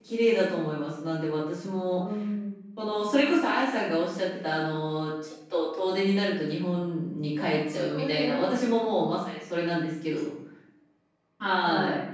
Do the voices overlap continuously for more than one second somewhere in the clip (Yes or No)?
Yes